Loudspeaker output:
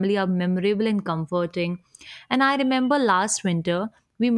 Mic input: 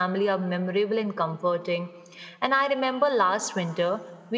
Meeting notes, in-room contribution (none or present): none